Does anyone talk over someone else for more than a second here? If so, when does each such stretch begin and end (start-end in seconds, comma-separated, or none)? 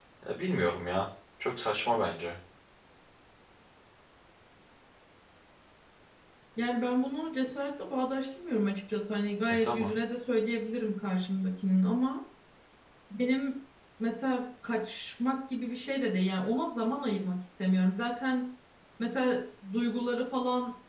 none